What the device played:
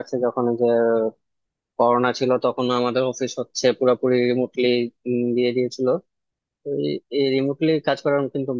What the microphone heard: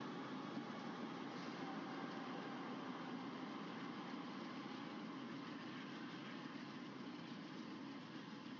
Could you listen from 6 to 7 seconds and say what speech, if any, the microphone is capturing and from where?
neither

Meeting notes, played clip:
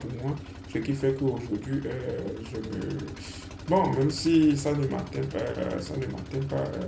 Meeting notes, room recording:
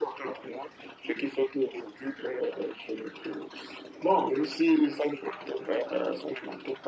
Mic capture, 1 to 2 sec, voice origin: echo only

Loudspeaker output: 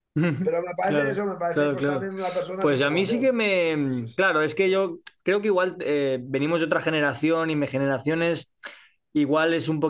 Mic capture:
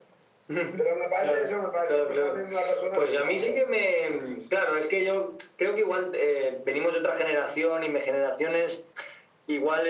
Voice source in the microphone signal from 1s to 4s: echo only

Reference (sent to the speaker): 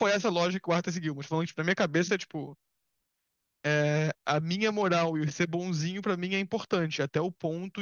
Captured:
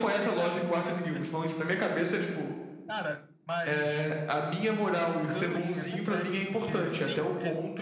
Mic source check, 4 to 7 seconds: both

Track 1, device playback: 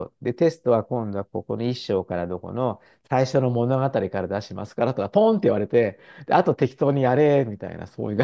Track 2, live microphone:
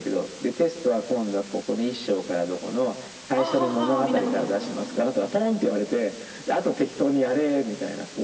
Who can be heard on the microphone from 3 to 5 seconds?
both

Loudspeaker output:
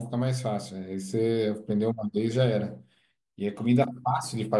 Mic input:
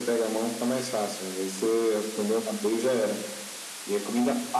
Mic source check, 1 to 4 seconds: echo only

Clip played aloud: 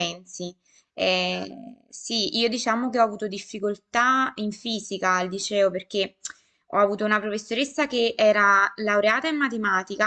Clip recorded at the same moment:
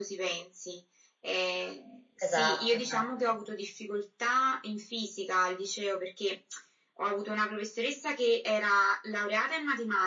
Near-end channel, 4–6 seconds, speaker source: echo only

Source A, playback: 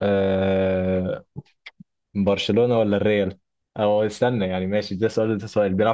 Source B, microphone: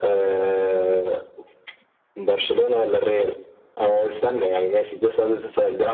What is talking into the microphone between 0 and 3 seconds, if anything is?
echo only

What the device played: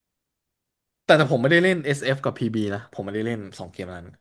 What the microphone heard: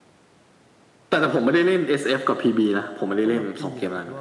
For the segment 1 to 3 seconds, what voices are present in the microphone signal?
echo only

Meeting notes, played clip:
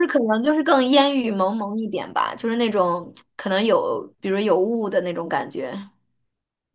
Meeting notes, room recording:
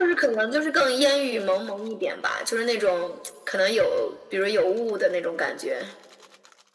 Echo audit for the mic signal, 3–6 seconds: echo only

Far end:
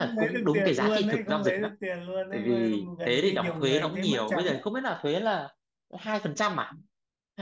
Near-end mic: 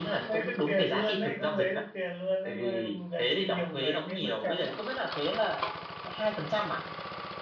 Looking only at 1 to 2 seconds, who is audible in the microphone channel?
echo only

